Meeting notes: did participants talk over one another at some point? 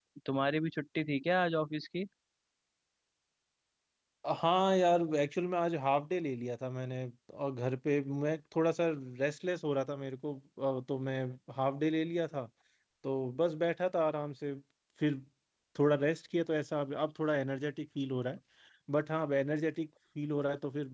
No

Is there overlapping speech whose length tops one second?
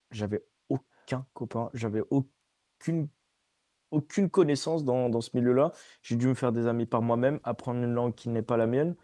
No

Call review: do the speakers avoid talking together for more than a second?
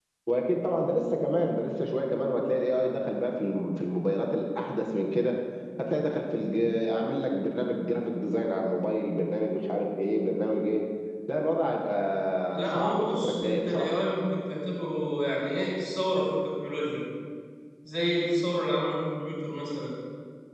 No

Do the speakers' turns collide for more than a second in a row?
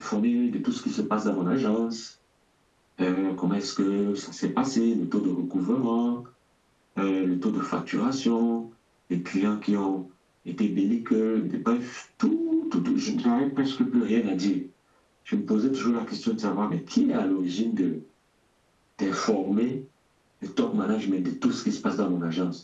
No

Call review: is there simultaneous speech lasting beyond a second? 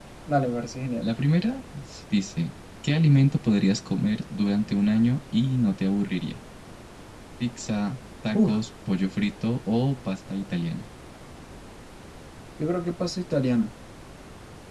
No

